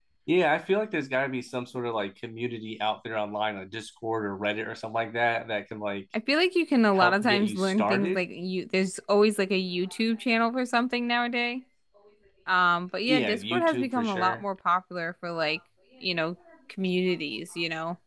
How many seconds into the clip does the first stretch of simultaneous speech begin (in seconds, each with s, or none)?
6.9 s